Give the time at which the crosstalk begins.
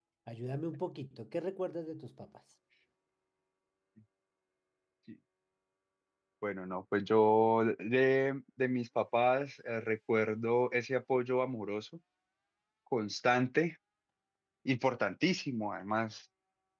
none

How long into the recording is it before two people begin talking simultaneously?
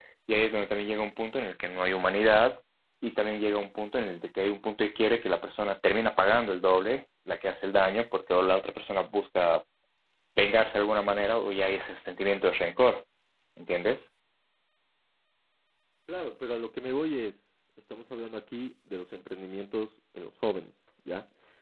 none

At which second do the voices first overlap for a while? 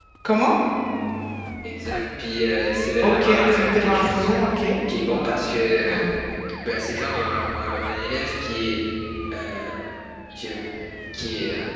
3.0 s

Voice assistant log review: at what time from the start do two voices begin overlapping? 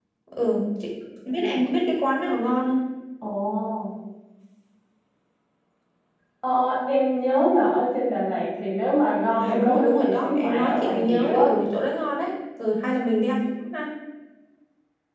9.4 s

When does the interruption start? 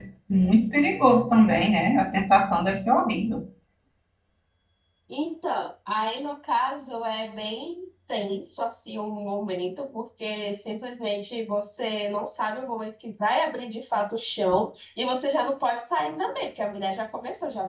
none

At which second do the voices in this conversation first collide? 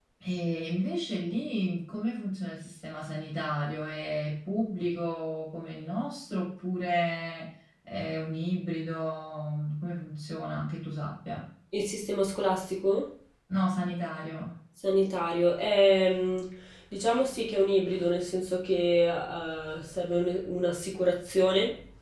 none

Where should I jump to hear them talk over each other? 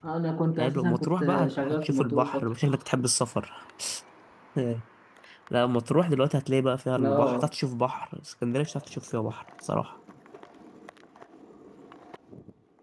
0.6 s

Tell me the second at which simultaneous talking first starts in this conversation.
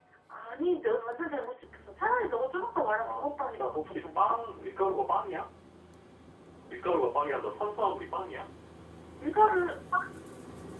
3.0 s

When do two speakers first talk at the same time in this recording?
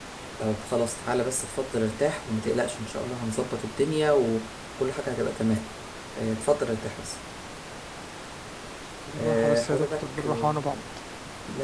9.2 s

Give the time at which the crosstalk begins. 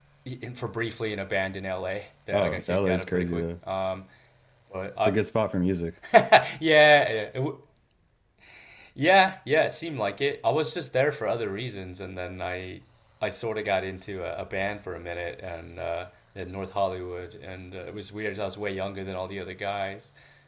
2.3 s

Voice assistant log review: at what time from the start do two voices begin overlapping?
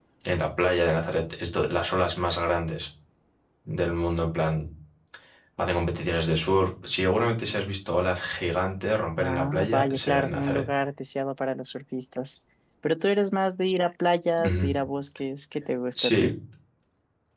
9.2 s

